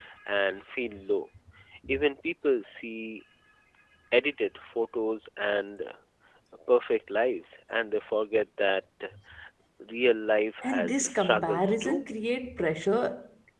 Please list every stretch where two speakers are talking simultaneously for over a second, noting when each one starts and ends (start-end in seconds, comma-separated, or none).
10.6-12.0